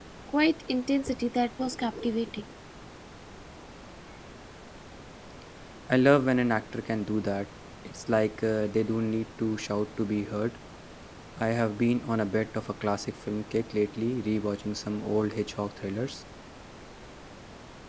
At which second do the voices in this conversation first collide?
none

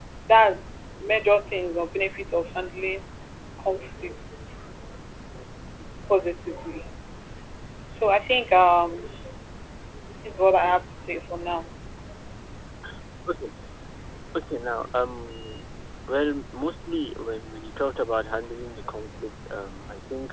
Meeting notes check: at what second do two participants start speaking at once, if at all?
none

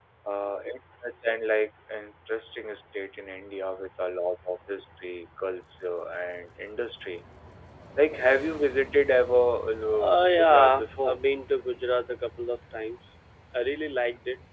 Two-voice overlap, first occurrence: 9.9 s

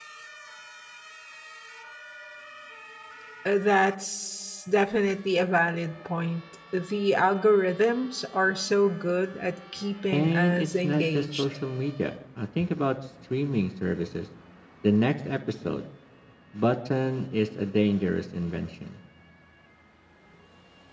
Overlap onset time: 10.1 s

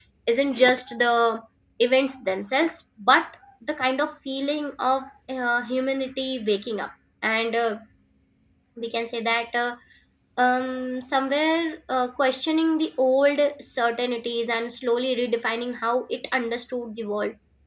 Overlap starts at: none

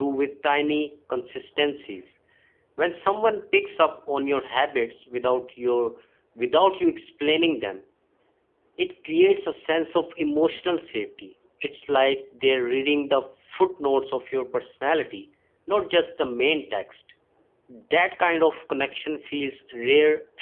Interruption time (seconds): none

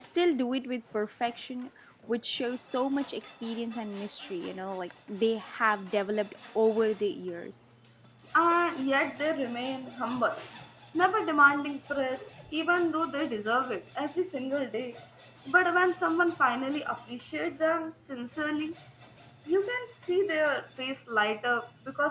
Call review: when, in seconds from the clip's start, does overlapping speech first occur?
none

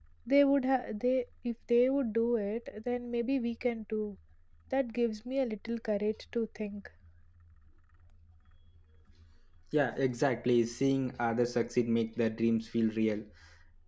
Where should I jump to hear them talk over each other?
none

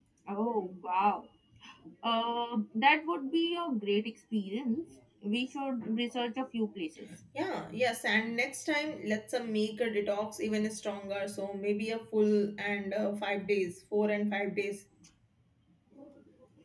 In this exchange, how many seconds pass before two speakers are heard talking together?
none

